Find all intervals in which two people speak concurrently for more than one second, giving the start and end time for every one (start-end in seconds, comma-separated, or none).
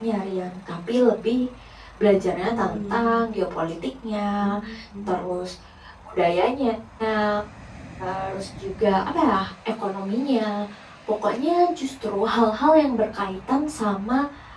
2.0-3.3